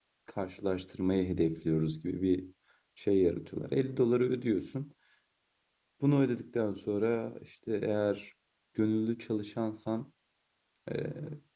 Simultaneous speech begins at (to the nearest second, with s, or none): none